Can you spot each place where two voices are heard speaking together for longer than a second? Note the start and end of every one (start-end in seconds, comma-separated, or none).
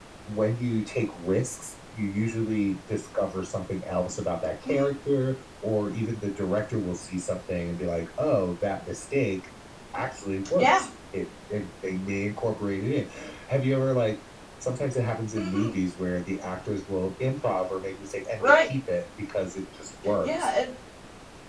none